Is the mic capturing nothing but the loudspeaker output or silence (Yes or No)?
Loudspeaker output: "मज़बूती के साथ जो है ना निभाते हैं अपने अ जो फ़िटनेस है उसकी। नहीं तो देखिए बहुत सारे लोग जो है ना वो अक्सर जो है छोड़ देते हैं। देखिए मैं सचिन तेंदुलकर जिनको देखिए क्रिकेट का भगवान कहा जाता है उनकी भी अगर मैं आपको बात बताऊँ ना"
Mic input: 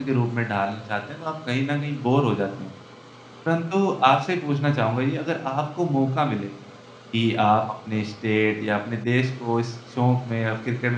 No